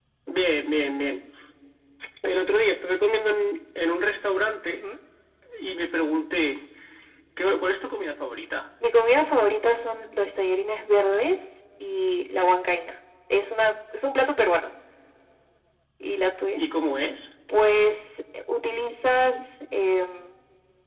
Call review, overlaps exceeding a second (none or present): none